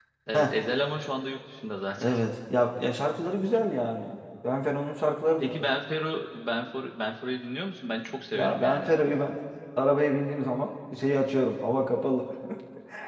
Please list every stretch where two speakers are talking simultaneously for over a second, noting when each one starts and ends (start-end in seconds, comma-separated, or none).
none